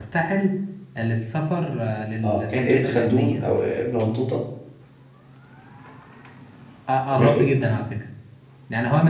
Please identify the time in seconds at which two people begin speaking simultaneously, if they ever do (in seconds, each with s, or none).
2.2 s